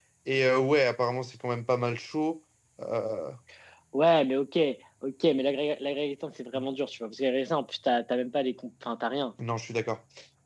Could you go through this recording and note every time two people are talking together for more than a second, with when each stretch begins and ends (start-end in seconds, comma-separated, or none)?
none